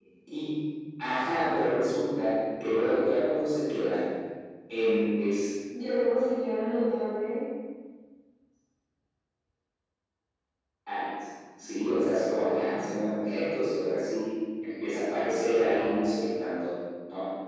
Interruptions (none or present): none